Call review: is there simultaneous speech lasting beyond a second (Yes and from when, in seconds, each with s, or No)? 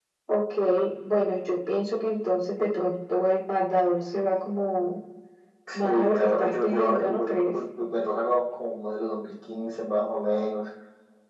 Yes, from 5.8 s